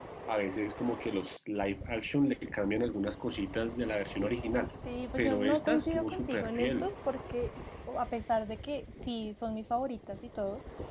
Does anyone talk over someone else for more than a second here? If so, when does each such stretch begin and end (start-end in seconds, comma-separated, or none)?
5.2-6.9